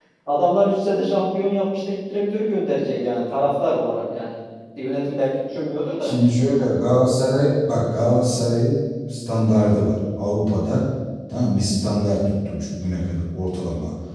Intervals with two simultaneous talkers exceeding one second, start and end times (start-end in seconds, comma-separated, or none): none